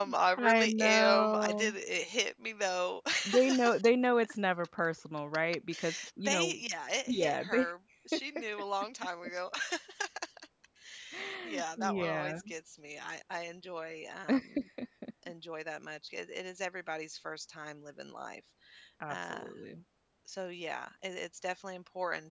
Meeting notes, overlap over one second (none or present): present